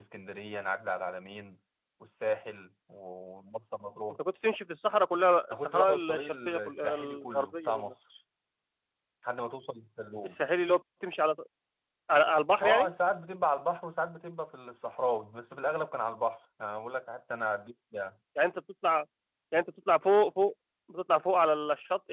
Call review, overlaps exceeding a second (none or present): present